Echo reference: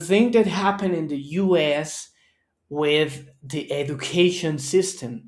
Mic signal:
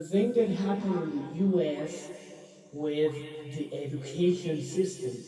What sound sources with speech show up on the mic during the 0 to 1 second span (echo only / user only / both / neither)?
echo only